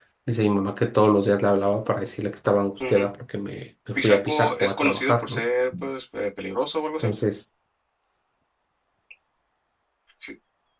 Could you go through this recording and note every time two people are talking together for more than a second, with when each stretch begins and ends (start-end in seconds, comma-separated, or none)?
4.0-5.4